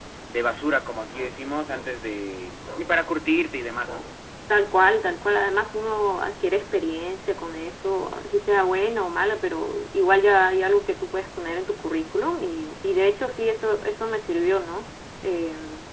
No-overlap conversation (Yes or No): Yes